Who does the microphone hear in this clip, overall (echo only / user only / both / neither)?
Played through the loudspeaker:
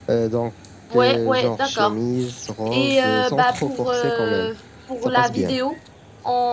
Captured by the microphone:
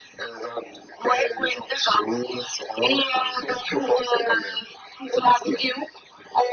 echo only